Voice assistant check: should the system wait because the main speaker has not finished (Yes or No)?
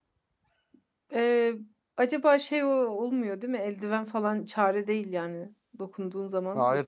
No